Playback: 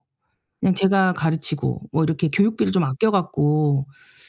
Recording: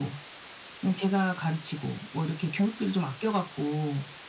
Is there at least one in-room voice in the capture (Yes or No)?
No